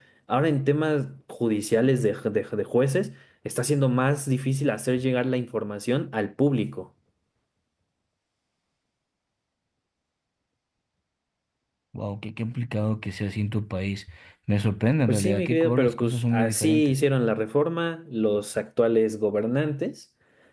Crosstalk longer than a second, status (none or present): present